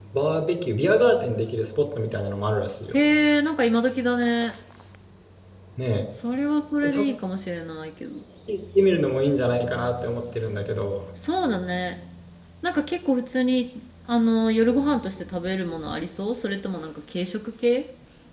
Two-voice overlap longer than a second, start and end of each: none

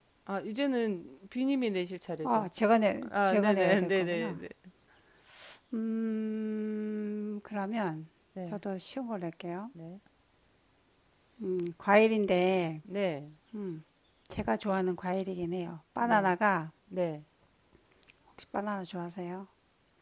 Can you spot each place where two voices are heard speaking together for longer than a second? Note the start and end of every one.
3.0-4.4

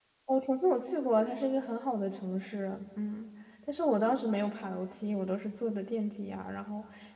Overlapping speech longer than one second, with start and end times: none

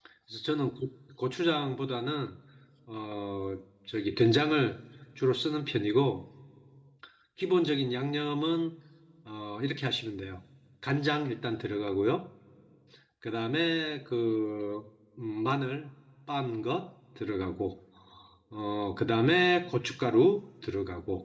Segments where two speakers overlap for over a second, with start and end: none

